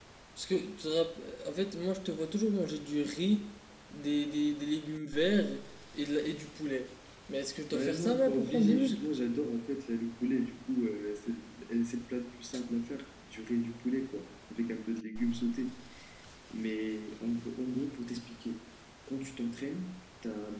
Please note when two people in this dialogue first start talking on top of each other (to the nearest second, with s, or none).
8 s